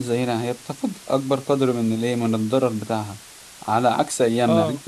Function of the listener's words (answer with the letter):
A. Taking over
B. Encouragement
B